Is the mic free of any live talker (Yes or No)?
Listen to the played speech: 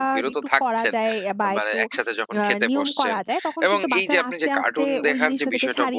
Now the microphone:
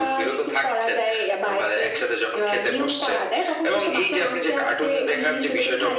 Yes